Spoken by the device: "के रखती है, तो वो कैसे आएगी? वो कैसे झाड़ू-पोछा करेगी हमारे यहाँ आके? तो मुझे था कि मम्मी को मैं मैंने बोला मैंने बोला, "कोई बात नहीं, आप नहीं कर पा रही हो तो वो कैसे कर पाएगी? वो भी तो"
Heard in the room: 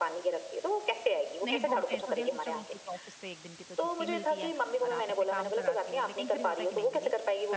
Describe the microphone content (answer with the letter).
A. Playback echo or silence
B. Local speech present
B